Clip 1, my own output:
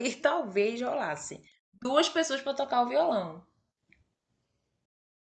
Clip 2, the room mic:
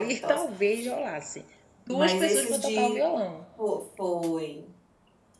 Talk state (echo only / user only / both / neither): both